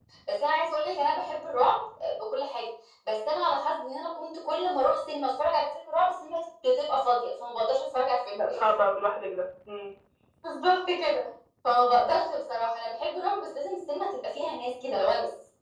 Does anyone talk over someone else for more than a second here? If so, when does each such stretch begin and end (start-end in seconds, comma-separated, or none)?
none